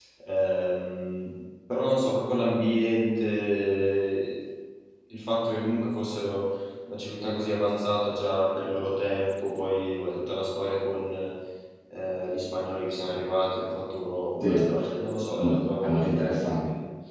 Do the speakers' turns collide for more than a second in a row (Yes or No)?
Yes